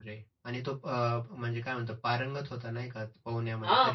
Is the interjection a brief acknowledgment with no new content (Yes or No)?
No